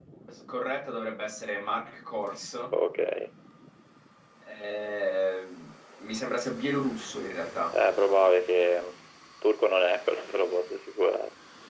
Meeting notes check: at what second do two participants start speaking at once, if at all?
none

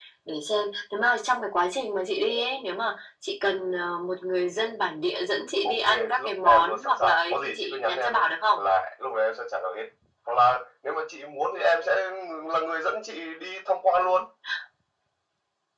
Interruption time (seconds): 5.6 s

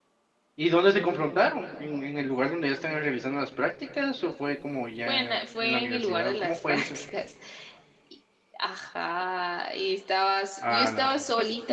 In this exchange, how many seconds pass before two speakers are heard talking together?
5.1 s

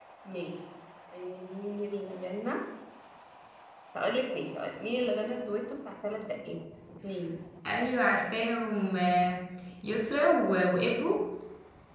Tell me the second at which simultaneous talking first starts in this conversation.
none

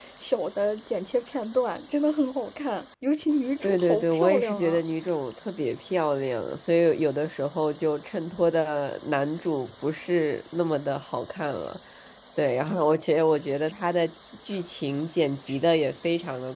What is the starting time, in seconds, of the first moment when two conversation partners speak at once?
3.6 s

